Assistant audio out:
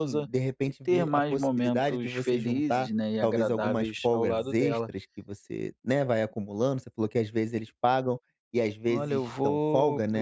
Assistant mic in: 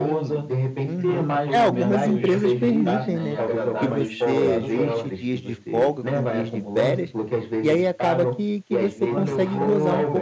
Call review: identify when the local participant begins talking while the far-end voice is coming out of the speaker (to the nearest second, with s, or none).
1 s